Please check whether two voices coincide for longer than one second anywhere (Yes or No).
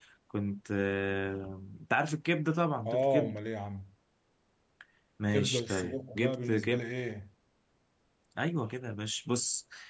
Yes